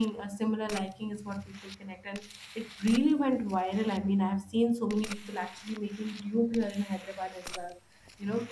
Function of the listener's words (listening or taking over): listening